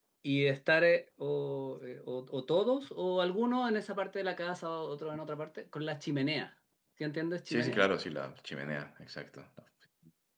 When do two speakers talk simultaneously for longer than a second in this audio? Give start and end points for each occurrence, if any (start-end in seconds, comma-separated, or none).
none